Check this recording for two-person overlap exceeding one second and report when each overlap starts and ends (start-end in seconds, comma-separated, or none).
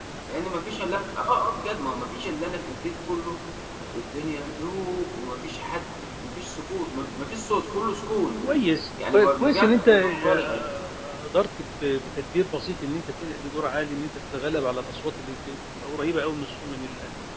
9.1-10.4